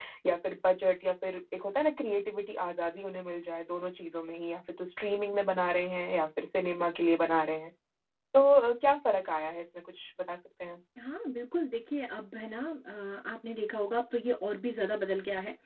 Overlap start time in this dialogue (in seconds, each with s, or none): none